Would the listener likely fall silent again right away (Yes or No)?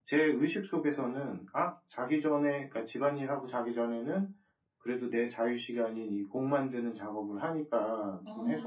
Yes